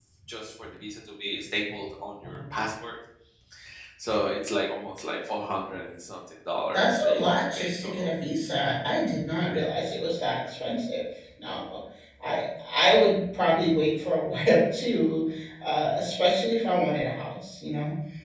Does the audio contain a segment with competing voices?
Yes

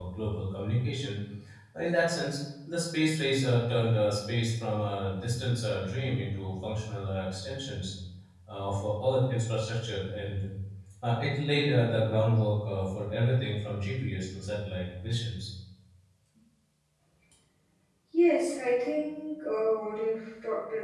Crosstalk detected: No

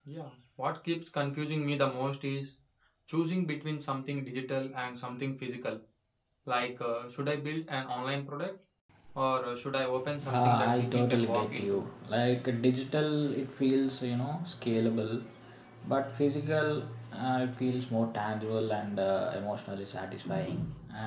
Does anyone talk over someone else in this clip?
Yes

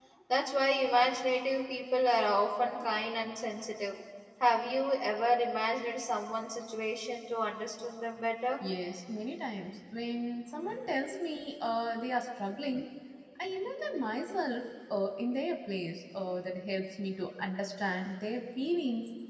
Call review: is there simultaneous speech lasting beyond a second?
No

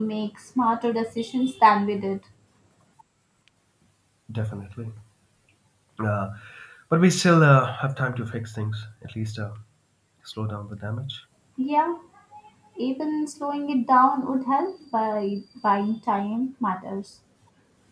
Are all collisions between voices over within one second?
Yes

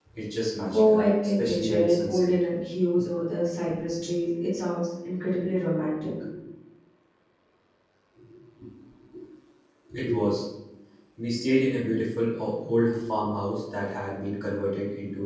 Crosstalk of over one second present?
Yes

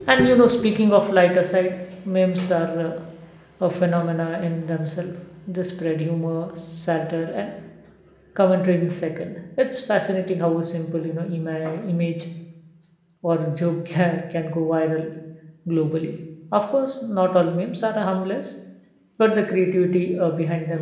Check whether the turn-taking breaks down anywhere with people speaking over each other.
No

